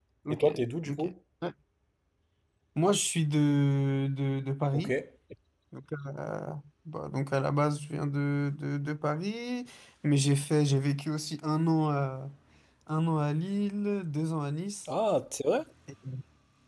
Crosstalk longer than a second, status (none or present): none